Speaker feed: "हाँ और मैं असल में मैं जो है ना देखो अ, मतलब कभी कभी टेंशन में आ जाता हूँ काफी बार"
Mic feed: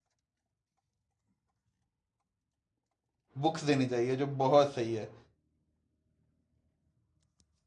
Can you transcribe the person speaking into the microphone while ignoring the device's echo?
बुक्स देनी चाहिए जो बहुत सही है

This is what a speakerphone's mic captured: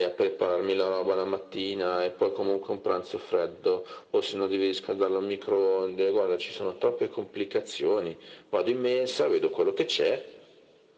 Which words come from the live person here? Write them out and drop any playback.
none

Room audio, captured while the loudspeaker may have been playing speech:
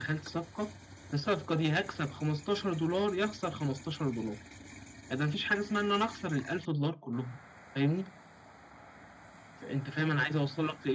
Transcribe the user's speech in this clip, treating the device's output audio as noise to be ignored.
none

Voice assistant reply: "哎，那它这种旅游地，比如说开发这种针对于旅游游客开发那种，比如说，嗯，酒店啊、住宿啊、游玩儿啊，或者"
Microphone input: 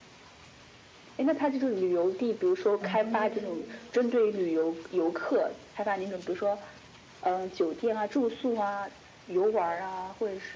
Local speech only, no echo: 然后中间

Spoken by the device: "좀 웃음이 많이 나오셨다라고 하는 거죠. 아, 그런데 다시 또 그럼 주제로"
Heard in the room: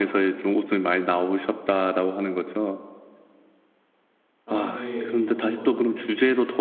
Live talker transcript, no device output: 라는 게 정 맞는 것 같아요.

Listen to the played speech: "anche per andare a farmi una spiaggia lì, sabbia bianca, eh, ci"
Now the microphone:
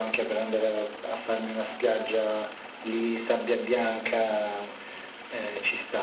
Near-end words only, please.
none

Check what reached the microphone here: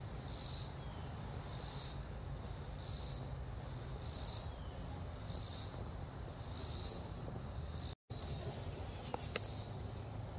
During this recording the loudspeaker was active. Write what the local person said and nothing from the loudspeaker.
none

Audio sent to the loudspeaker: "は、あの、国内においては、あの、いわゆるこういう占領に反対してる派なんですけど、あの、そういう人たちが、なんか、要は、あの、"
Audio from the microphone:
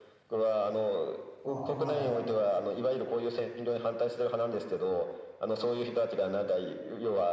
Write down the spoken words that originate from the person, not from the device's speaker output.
あ、はい。

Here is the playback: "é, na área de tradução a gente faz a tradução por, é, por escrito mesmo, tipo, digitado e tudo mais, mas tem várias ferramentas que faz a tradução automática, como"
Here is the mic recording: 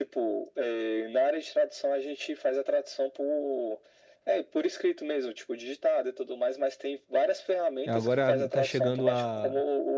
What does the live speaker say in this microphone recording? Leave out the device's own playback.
E Agora tá chegando a

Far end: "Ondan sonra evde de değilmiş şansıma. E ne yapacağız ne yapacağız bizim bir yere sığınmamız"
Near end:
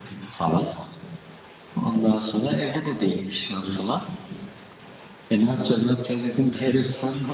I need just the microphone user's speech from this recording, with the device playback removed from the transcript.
none

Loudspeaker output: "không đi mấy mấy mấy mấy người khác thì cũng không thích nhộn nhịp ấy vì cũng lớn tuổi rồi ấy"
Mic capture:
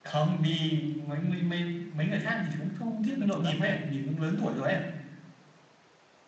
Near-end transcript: tên là chùa Lama

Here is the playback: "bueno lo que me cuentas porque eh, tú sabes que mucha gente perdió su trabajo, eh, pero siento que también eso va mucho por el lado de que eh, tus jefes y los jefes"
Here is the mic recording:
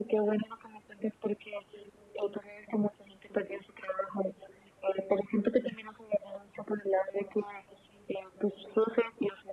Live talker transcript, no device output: none

